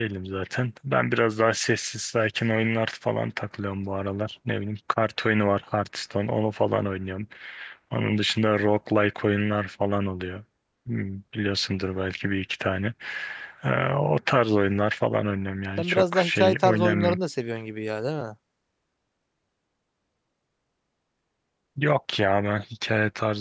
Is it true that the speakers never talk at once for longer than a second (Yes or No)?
No